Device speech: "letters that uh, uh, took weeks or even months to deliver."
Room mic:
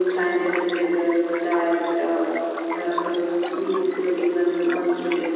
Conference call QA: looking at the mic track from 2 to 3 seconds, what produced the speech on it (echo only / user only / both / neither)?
echo only